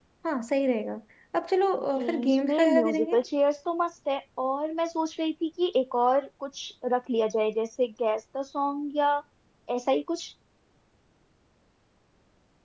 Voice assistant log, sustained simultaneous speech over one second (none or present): present